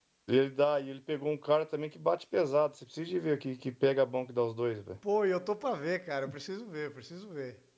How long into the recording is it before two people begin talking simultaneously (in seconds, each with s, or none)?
none